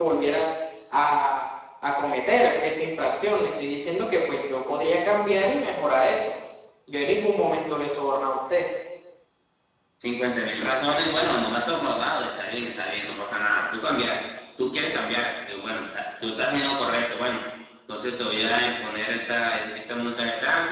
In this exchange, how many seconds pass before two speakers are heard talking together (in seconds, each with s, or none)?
none